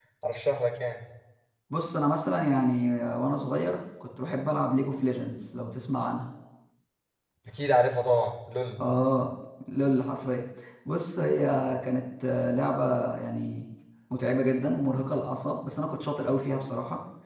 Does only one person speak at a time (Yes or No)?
Yes